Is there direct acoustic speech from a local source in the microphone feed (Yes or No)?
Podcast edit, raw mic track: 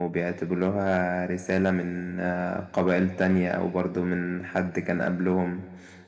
Yes